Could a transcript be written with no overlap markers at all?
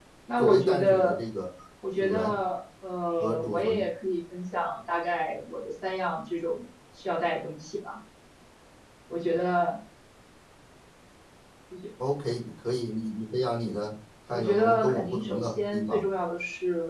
No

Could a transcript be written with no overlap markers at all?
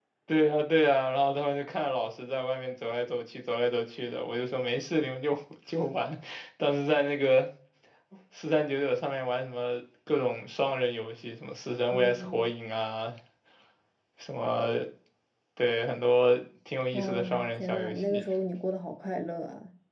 No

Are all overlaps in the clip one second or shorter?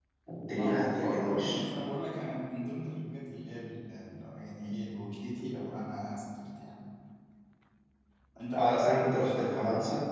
No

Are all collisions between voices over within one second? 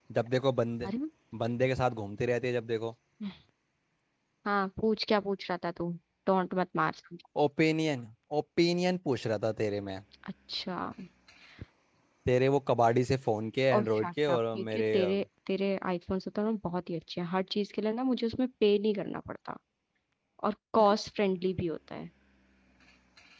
No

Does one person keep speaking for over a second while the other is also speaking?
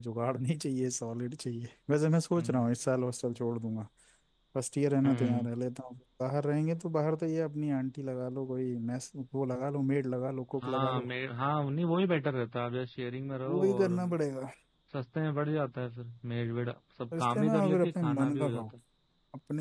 Yes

